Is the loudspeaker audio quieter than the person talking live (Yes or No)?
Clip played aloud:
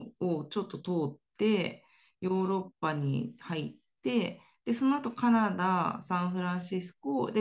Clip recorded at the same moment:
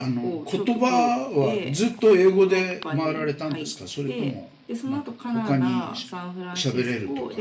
Yes